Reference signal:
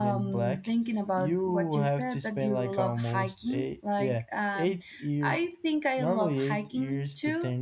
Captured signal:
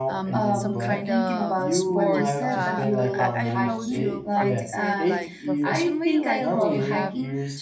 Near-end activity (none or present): present